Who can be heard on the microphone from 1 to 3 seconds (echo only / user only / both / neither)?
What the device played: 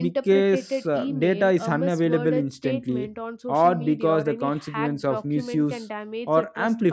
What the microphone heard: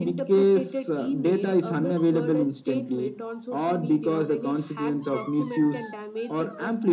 echo only